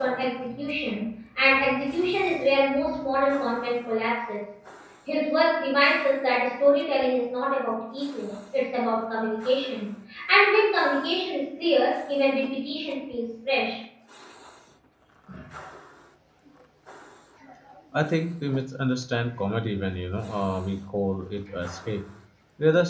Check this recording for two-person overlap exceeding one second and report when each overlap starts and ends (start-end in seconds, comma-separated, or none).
none